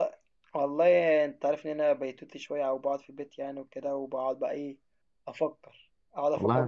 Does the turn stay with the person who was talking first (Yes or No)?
Yes